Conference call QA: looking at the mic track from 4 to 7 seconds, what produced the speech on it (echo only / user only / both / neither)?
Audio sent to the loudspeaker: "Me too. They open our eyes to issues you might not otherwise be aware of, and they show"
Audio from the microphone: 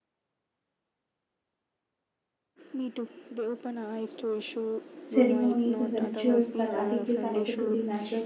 both